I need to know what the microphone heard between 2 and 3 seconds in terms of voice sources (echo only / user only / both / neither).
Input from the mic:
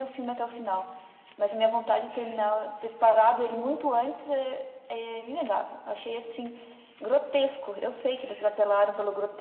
echo only